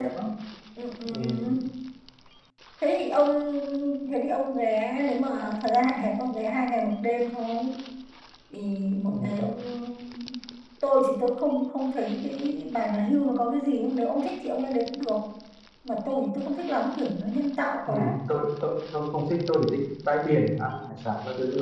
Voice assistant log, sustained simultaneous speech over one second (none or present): none